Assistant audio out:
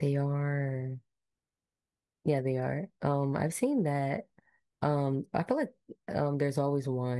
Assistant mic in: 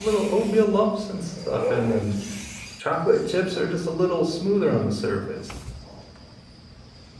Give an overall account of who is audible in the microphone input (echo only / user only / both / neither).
user only